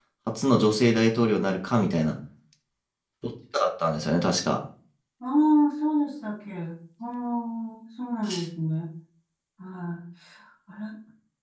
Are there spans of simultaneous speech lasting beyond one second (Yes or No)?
No